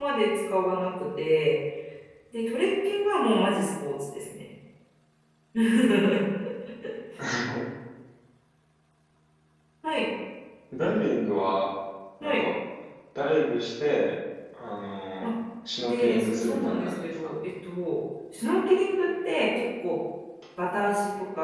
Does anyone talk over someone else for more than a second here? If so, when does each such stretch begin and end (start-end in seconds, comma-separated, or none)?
15.9-17.3